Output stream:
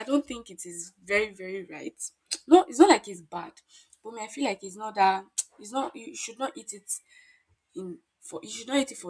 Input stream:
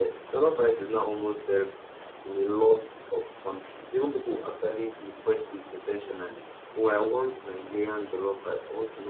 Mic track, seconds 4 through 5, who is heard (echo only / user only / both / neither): user only